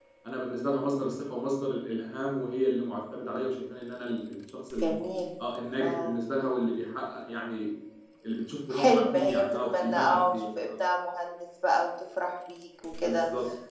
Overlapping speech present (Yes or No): Yes